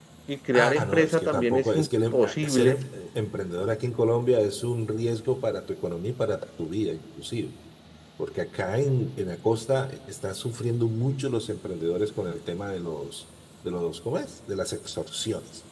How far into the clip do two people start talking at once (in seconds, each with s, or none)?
0.5 s